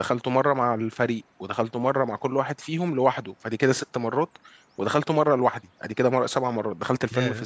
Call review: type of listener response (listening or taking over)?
listening